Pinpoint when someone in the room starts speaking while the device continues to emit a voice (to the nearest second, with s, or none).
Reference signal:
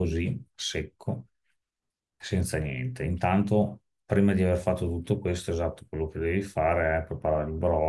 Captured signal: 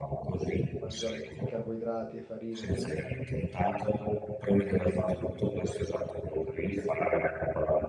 1 s